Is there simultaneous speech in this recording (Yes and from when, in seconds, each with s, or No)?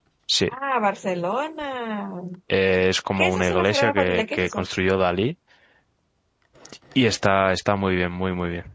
Yes, from 3.2 s